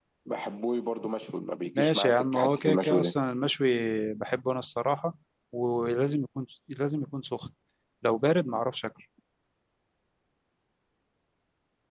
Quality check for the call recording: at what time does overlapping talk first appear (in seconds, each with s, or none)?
1.8 s